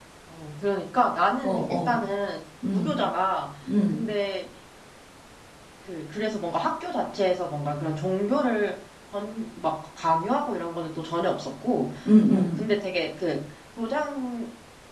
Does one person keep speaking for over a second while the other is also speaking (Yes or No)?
No